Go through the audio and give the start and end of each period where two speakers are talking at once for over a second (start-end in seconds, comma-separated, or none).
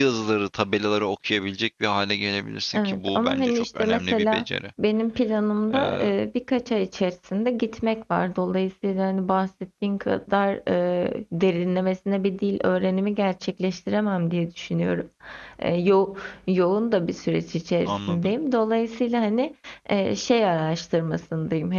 2.7-4.4